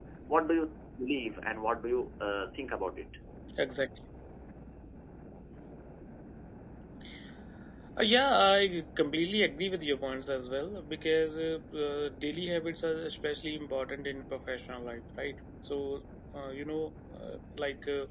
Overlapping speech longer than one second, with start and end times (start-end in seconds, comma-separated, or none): none